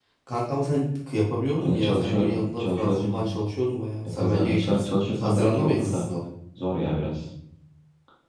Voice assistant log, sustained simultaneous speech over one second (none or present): present